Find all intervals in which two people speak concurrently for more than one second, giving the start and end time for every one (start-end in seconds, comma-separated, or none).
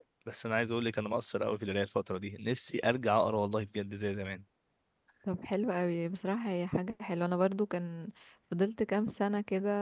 none